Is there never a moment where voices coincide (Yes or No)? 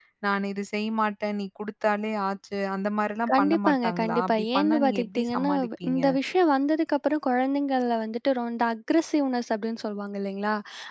No